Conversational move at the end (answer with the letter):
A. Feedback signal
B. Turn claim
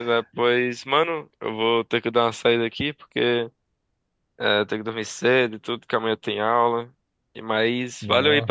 A